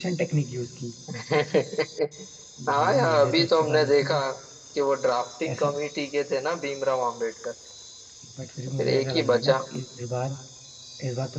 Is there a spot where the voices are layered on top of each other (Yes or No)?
Yes